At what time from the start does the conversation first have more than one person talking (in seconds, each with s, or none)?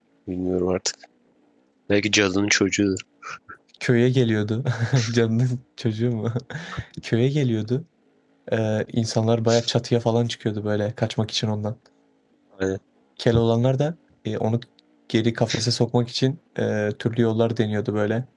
none